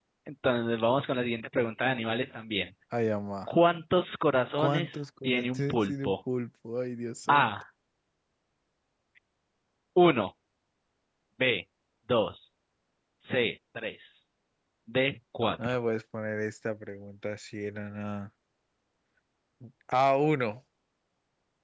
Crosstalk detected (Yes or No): Yes